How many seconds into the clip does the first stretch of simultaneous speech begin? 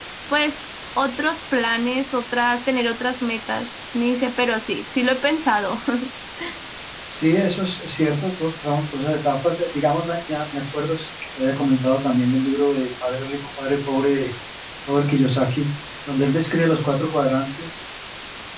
none

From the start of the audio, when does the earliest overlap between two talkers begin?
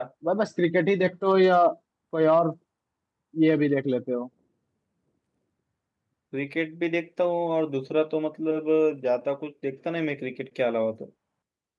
none

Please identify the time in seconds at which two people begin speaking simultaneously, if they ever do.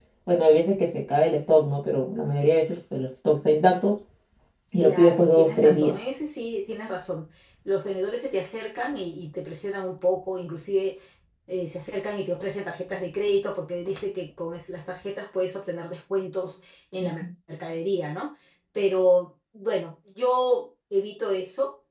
5 s

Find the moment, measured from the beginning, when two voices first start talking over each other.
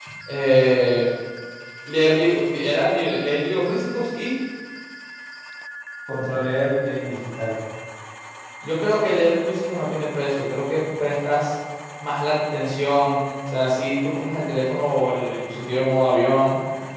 none

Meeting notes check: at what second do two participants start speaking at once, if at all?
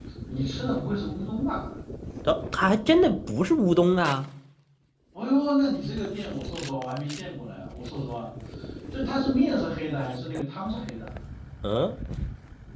none

